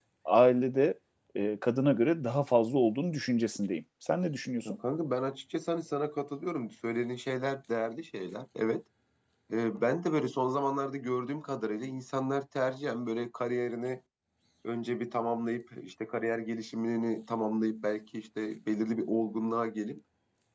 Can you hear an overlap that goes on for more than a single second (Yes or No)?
No